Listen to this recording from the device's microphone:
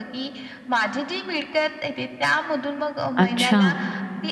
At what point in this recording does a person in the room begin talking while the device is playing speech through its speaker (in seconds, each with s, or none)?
3.2 s